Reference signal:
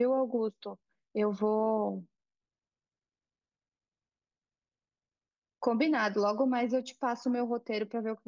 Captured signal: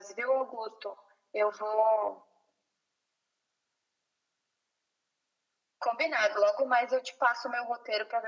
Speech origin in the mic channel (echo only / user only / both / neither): echo only